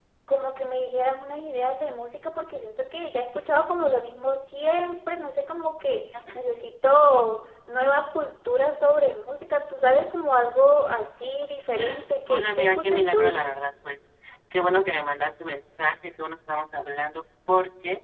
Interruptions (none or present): present